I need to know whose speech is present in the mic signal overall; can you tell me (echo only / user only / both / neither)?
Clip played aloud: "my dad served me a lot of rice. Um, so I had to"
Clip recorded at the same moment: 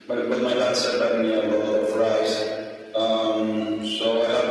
echo only